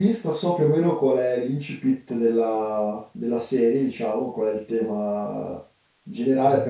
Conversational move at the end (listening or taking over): listening